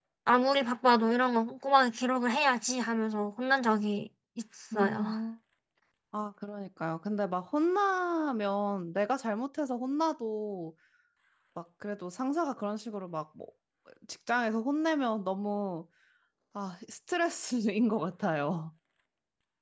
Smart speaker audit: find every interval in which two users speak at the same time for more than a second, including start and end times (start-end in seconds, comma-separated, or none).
none